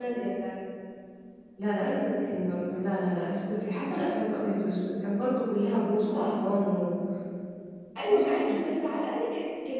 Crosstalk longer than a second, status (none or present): none